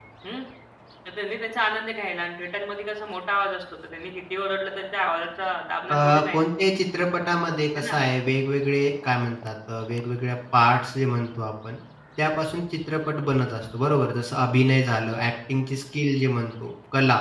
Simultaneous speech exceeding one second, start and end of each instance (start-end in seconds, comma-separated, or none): none